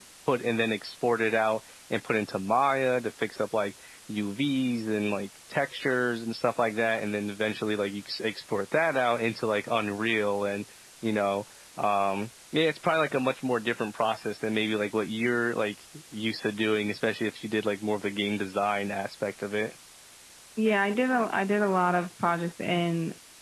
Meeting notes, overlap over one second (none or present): none